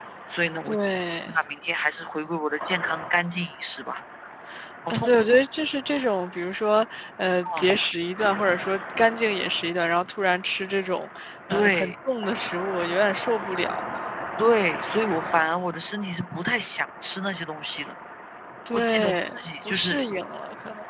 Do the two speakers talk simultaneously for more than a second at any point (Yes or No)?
Yes